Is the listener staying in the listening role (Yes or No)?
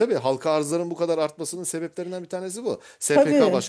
Yes